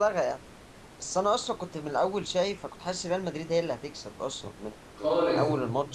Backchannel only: Yes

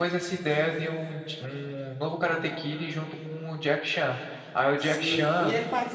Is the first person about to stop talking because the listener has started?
Yes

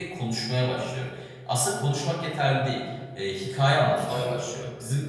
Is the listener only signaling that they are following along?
Yes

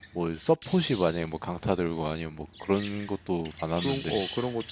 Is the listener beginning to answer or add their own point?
Yes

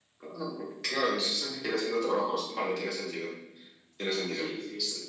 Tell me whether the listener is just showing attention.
No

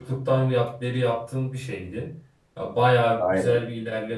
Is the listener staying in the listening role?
Yes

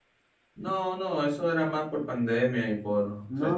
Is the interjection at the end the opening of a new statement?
Yes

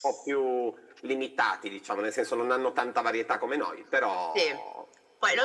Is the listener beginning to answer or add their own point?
Yes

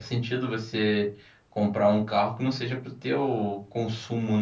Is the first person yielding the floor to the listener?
Yes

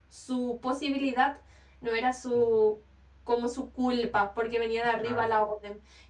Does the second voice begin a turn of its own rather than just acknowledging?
No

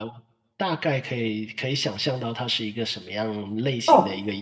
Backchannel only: No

